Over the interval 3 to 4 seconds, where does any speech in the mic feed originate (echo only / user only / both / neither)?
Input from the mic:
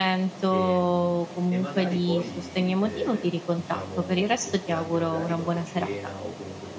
both